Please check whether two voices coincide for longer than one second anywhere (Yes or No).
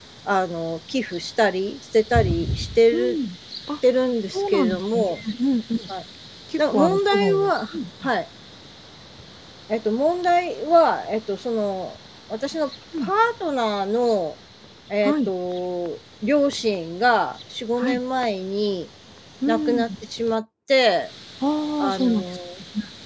Yes